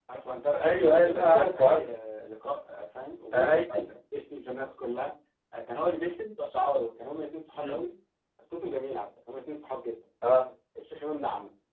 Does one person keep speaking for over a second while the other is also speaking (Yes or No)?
Yes